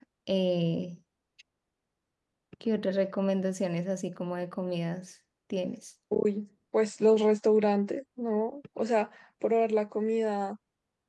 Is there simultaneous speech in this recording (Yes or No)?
No